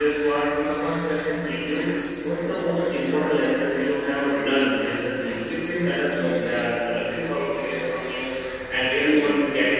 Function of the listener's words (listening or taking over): listening